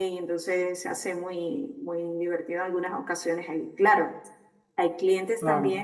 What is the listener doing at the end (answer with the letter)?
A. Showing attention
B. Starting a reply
A